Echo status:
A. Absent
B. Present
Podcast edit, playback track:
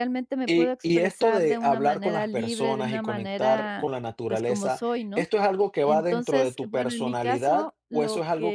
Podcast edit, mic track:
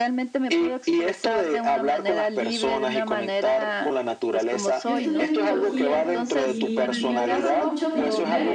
B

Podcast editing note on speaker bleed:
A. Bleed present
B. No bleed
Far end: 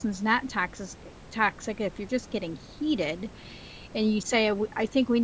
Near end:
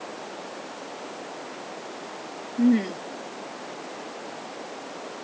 B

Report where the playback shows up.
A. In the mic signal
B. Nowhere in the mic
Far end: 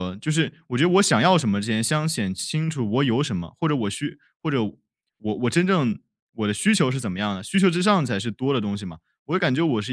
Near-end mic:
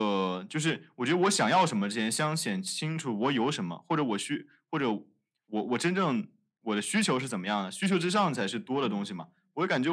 A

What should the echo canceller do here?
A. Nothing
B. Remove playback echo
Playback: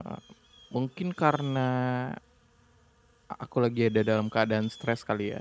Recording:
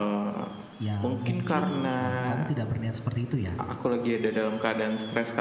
B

